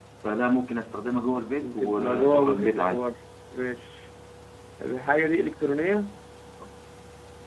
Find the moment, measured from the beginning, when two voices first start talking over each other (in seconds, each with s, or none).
1.6 s